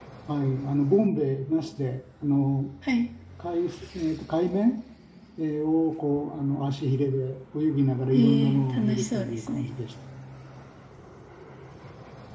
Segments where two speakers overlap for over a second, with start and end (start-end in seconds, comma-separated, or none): 8.1-9.6